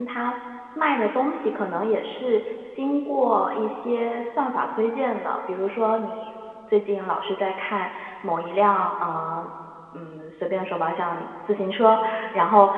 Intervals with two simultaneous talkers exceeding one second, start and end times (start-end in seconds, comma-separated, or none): none